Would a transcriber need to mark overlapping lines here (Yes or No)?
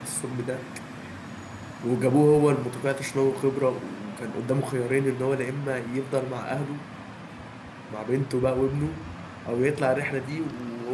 No